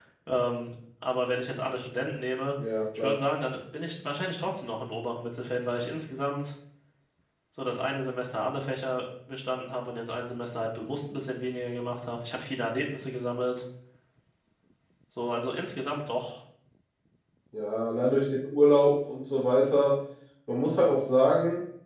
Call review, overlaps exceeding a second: none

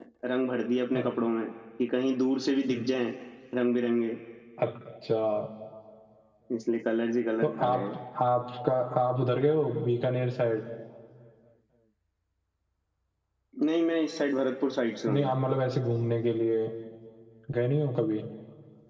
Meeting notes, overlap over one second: none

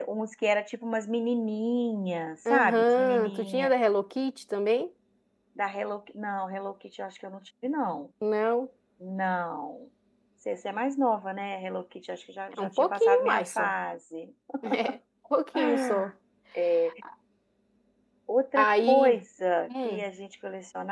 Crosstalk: present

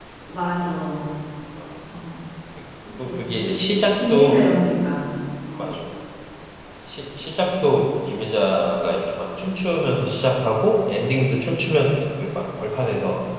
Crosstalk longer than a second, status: present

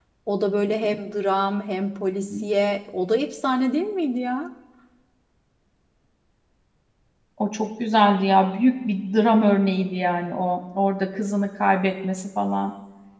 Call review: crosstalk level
none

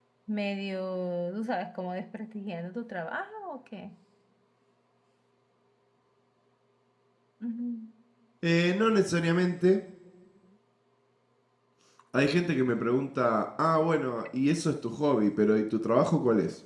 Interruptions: none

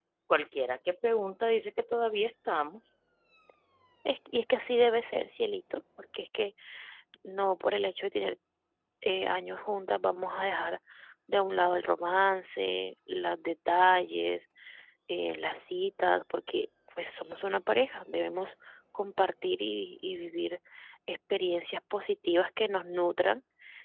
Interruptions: none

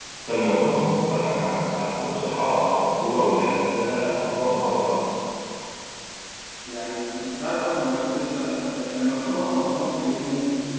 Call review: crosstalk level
none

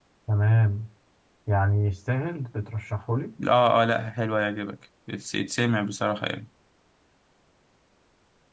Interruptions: none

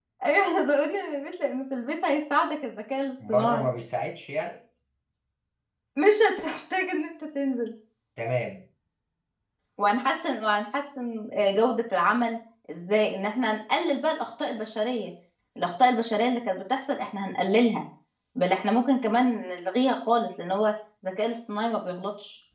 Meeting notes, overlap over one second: none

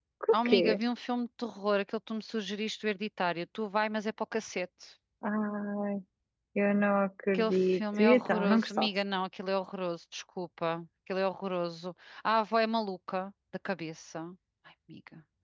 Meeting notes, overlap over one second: present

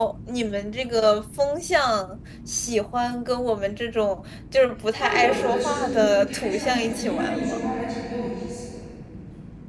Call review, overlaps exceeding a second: present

